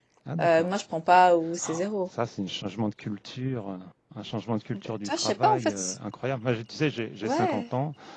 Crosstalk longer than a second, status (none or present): present